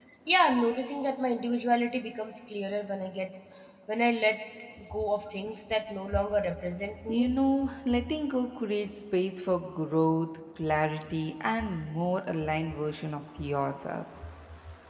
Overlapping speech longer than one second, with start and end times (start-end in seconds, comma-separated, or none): none